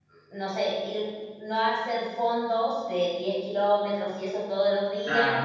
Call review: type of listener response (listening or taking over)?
listening